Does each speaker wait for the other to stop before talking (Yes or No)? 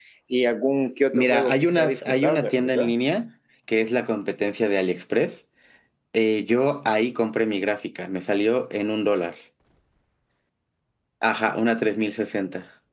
No